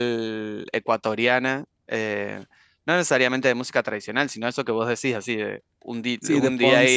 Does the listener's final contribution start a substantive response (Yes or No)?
Yes